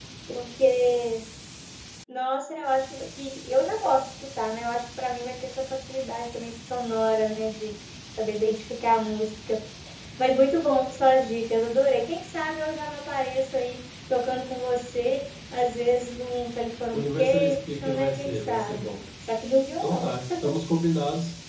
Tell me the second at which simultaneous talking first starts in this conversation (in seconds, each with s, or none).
16.9 s